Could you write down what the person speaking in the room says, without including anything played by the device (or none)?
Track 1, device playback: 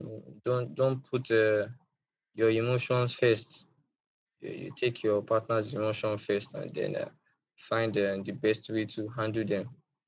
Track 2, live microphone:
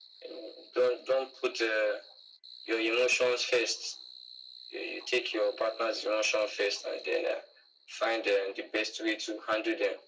none